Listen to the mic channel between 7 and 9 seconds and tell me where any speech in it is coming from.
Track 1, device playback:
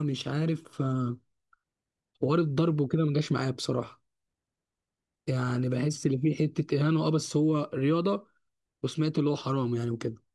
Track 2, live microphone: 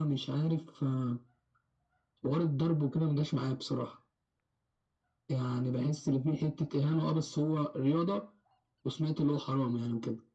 echo only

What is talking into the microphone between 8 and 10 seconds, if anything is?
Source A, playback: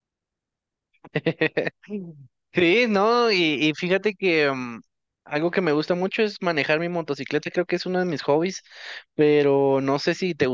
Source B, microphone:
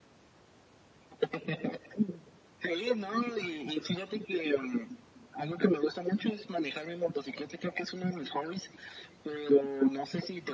echo only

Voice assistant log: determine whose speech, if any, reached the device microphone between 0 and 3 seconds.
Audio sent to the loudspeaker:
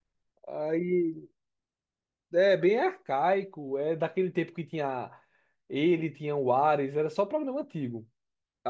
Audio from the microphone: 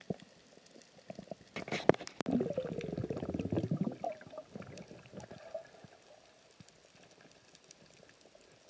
neither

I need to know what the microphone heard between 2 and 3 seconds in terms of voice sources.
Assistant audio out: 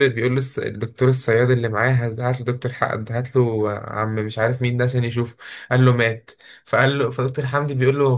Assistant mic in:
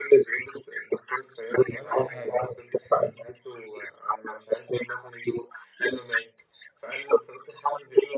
both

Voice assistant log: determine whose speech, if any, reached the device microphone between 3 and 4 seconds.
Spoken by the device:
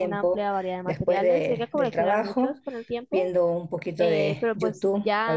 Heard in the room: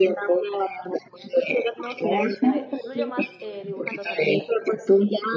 both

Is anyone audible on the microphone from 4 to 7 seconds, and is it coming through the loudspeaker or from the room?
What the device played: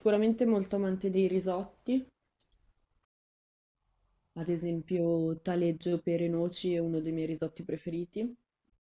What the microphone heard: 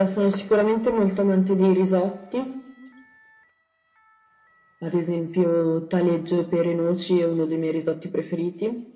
echo only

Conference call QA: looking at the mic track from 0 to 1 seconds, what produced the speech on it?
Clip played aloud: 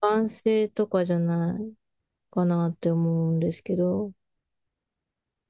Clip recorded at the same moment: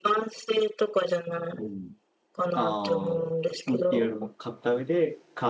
echo only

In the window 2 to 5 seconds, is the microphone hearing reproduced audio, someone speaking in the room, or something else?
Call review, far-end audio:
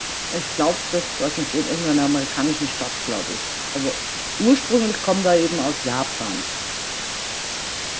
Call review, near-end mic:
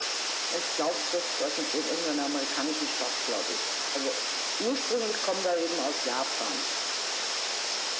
echo only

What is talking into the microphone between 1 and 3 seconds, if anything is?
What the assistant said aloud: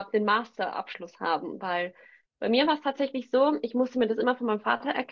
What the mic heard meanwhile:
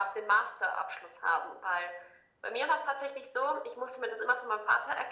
echo only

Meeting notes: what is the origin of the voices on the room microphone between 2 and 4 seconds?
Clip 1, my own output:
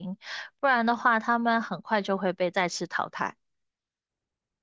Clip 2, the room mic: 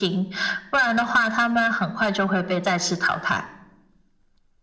echo only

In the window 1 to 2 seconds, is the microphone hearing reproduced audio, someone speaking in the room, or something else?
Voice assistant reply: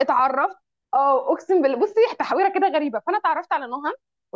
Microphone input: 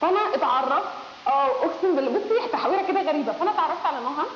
echo only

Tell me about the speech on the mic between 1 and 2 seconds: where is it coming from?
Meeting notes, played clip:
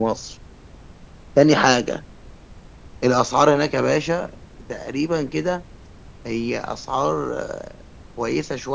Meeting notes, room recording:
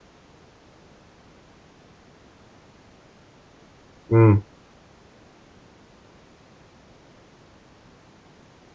neither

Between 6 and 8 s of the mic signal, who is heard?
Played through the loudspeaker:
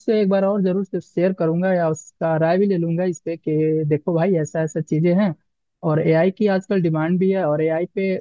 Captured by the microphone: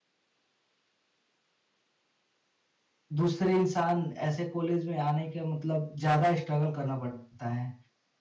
user only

